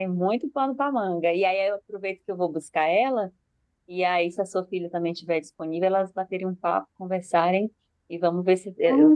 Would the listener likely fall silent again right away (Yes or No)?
No